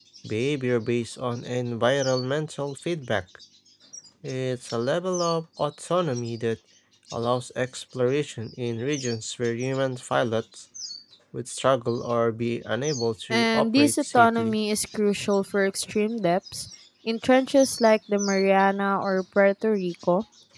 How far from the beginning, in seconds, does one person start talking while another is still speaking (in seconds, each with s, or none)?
13.3 s